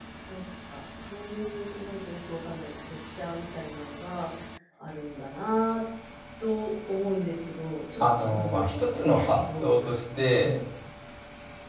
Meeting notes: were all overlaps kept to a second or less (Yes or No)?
No